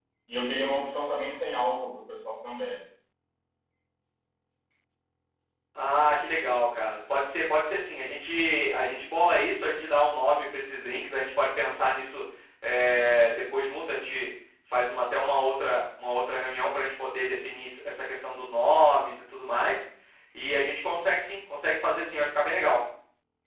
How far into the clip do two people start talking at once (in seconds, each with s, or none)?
none